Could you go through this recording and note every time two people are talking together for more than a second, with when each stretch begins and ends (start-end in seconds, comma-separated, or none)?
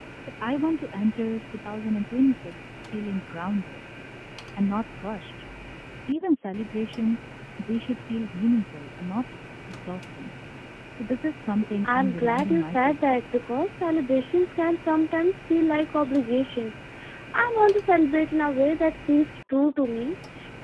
11.8-13.2